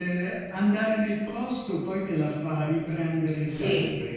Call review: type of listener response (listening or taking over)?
taking over